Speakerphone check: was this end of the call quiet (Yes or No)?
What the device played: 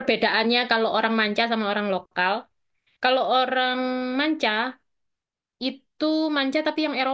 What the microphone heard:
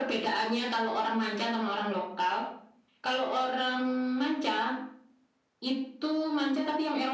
Yes